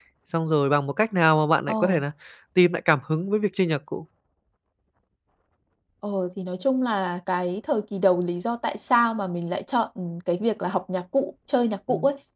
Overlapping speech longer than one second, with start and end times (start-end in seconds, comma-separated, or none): none